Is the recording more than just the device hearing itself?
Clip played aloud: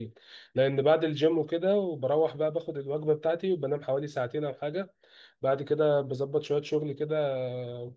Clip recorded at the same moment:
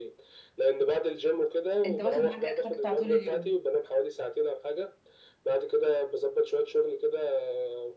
Yes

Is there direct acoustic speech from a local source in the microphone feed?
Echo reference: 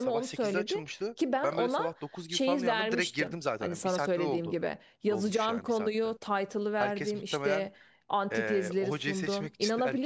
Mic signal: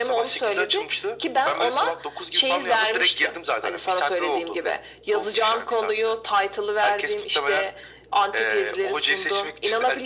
No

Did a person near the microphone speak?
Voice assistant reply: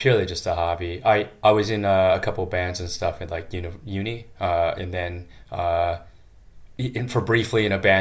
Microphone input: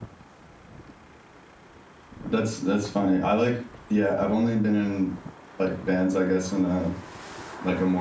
Yes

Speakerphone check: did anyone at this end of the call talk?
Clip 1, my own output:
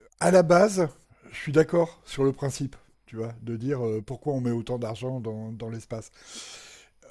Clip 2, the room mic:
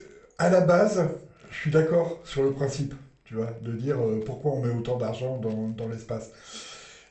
No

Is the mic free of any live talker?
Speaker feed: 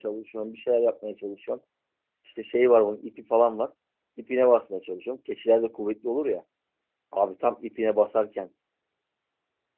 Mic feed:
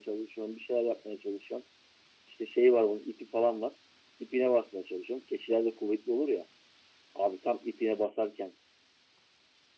Yes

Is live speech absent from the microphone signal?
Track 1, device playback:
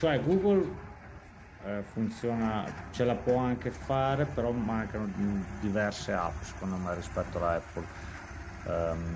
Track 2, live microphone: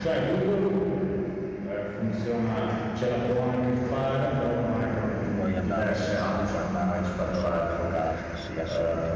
No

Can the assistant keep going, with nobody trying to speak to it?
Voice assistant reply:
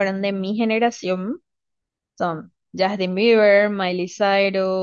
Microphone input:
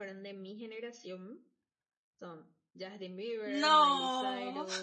No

